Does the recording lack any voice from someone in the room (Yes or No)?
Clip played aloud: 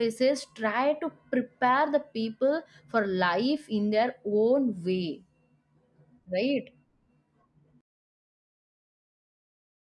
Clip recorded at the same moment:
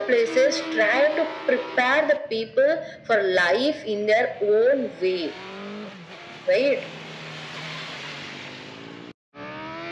Yes